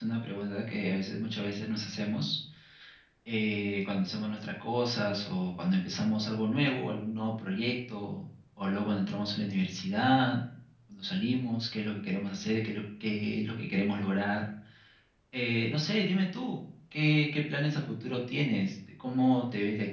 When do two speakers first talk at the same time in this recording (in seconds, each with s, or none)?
none